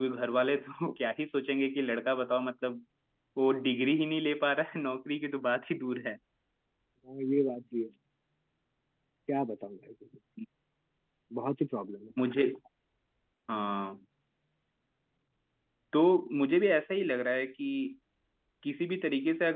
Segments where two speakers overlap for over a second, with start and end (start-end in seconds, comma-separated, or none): none